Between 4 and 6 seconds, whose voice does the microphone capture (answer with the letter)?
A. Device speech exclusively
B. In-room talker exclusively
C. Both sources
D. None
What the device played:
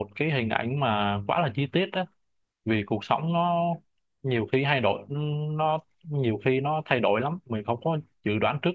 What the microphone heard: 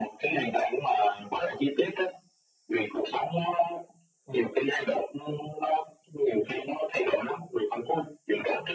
A